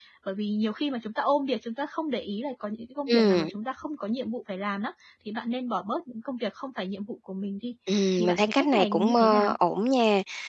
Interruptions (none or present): present